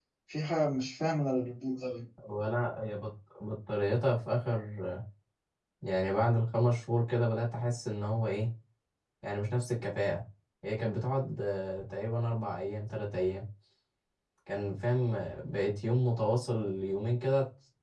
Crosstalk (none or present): none